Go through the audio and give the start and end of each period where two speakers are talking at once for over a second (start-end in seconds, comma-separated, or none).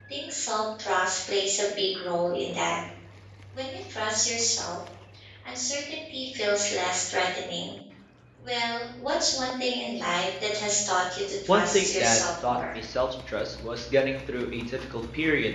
11.5-12.7